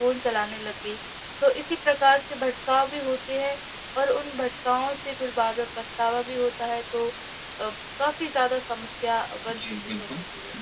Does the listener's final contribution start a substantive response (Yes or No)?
Yes